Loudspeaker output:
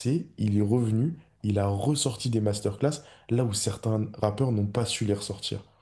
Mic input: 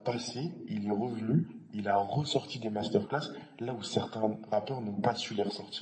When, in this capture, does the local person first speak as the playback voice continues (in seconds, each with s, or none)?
none